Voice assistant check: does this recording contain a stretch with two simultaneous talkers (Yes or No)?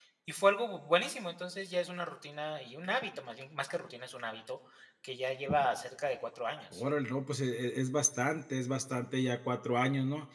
No